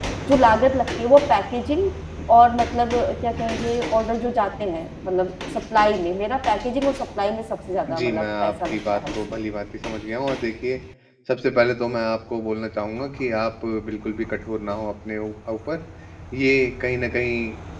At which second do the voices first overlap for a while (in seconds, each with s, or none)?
7.9 s